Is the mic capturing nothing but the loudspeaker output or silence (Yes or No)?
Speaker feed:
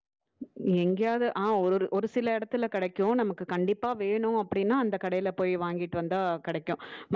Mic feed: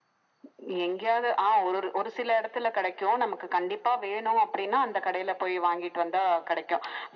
Yes